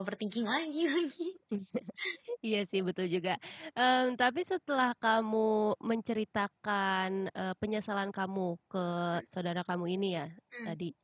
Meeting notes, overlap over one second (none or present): none